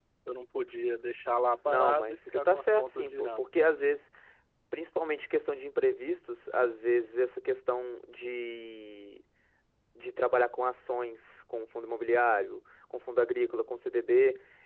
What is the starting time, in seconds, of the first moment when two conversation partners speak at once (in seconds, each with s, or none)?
1.6 s